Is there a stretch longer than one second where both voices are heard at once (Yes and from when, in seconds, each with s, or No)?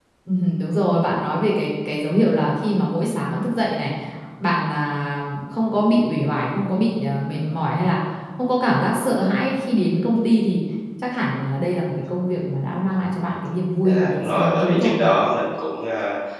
Yes, from 13.8 s